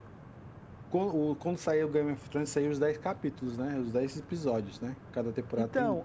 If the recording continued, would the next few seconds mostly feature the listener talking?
Yes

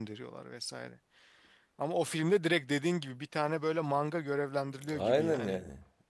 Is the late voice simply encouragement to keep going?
No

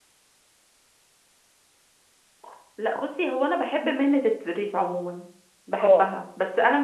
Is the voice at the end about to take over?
No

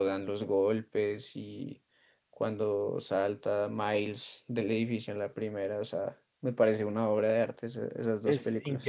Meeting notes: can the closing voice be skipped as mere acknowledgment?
No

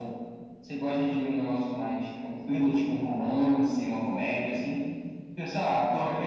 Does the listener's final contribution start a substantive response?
No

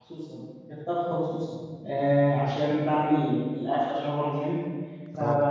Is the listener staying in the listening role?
Yes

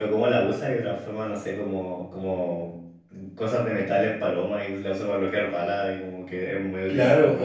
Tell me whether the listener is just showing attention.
No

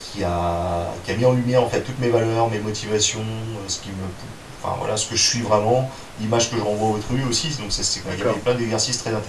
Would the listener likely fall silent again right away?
Yes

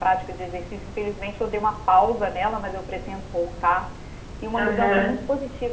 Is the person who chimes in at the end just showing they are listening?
Yes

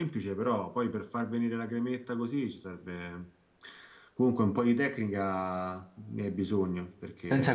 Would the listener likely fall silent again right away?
No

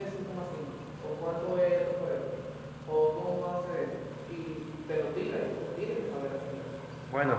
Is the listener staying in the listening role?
No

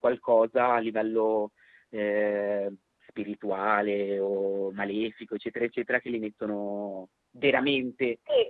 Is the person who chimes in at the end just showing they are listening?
No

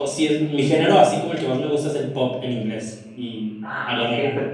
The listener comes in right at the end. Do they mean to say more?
Yes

